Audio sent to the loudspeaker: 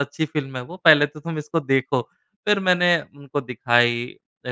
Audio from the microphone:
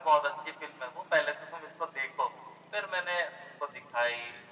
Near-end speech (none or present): none